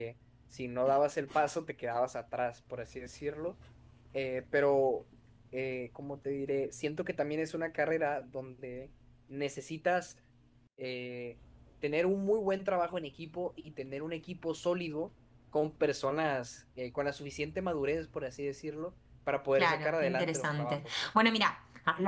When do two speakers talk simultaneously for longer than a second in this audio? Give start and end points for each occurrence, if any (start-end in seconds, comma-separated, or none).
19.6-21.1